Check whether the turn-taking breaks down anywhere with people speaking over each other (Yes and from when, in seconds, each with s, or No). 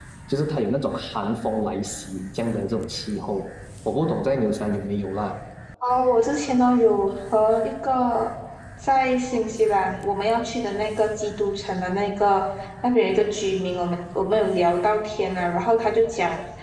No